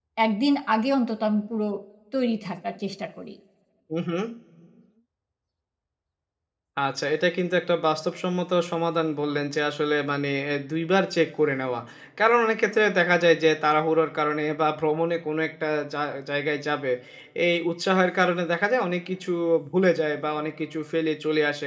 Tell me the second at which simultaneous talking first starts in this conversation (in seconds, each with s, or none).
none